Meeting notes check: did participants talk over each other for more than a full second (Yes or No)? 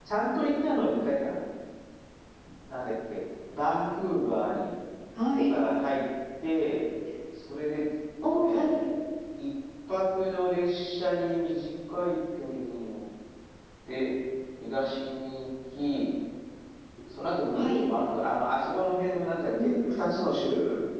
No